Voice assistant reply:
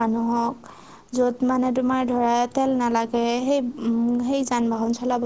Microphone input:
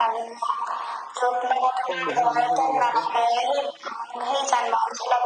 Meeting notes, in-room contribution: present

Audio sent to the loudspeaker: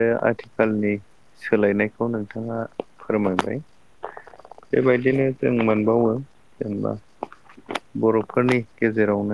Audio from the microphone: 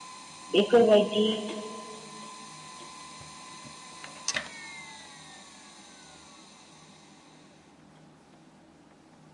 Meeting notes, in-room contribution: present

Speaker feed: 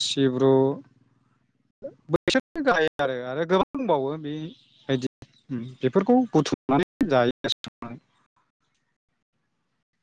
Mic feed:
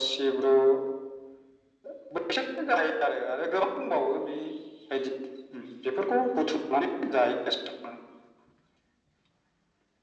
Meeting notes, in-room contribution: none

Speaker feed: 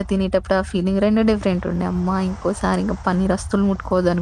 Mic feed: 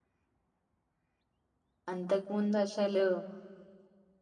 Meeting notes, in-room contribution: present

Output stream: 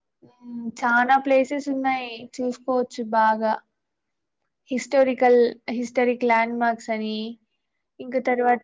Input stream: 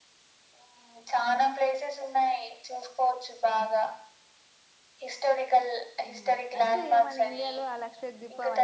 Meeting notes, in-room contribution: present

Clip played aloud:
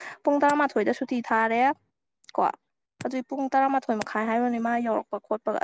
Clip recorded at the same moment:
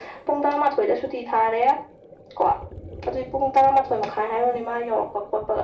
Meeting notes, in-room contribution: none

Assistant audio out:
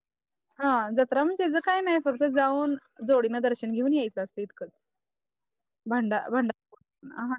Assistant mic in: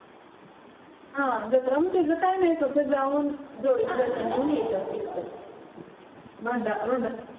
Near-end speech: present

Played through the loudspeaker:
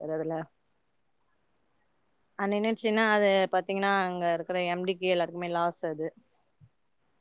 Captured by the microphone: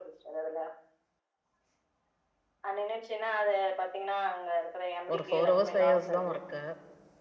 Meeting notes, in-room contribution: present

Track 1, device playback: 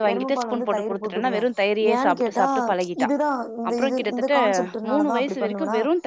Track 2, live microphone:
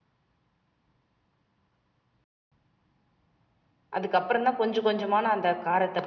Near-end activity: present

